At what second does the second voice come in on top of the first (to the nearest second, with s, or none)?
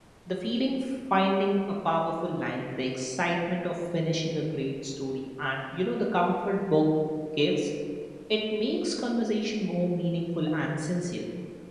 none